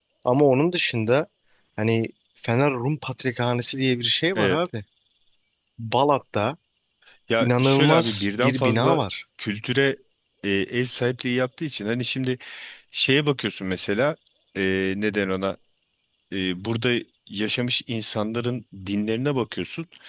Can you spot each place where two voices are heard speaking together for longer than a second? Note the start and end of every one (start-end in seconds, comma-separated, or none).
7.4-9.0